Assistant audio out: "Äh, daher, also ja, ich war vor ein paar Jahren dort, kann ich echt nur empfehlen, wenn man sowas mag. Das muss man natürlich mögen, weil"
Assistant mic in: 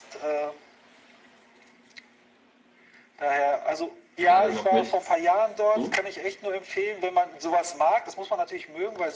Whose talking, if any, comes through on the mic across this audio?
both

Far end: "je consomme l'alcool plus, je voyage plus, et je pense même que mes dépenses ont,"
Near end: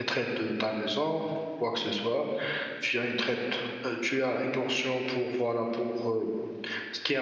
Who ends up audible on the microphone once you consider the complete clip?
user only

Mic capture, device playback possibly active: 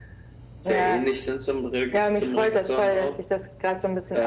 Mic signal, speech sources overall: echo only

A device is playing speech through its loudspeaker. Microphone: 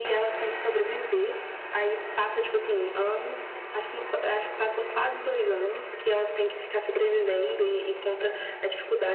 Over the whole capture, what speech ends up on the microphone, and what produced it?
echo only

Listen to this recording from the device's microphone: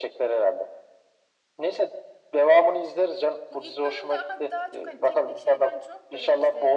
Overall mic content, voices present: both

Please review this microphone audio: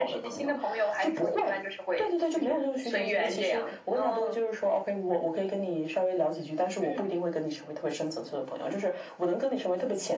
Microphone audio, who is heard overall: echo only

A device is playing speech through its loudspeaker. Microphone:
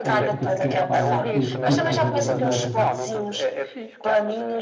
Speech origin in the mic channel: both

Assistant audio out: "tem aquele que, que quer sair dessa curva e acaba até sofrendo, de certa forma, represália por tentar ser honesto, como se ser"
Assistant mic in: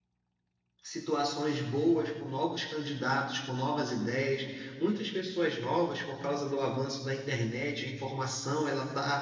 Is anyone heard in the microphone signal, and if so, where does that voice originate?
user only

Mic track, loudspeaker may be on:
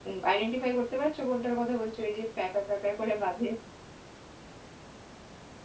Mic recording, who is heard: user only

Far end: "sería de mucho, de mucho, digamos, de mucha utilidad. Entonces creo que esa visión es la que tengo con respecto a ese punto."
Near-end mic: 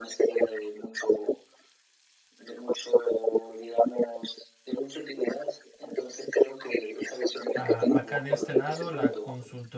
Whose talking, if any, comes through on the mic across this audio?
both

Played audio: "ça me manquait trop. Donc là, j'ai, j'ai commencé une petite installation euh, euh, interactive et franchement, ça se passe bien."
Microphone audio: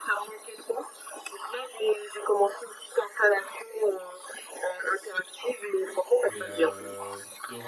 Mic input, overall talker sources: both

